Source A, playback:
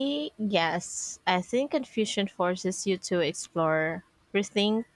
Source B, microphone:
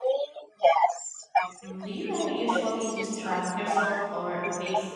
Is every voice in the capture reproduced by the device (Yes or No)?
No